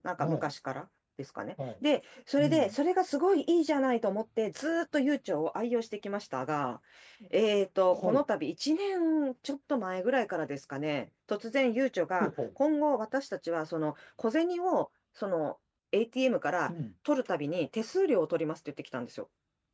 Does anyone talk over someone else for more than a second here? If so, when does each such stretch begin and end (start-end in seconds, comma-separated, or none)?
none